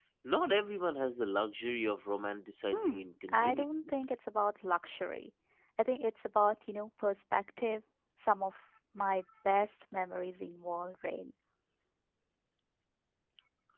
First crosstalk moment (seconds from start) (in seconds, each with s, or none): 2.7 s